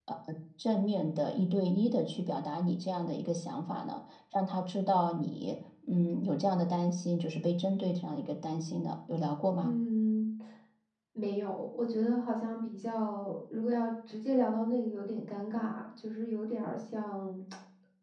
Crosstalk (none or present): none